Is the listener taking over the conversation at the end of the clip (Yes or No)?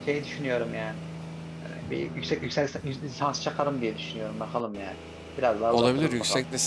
Yes